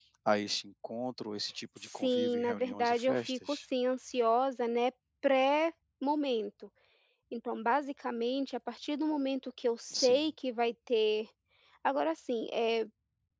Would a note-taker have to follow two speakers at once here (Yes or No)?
Yes